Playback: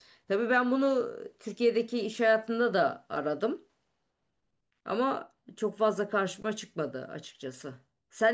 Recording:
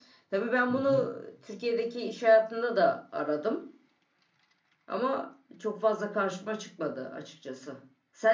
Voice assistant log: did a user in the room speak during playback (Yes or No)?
Yes